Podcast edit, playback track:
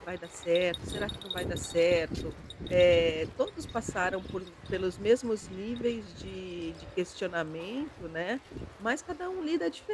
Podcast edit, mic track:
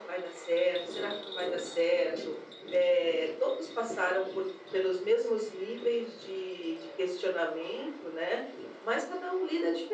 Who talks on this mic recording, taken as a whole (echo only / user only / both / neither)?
echo only